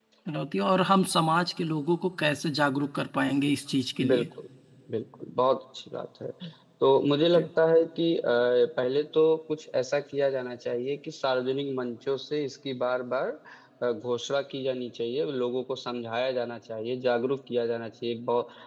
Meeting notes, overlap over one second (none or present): none